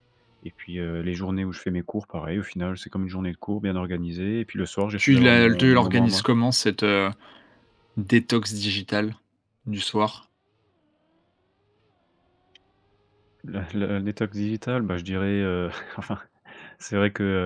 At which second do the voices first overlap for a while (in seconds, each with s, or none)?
5.0 s